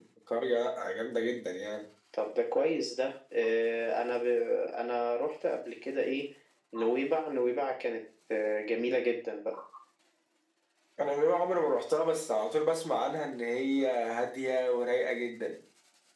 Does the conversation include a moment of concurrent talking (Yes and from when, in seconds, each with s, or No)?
No